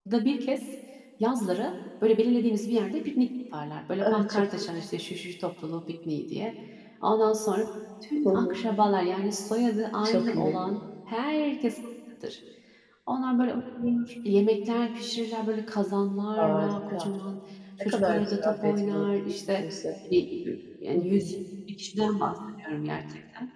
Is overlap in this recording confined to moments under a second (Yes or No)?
No